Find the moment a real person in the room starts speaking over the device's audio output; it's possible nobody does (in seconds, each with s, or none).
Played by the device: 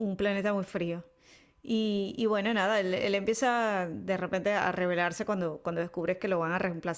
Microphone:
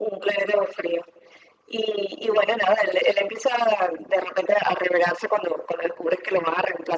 none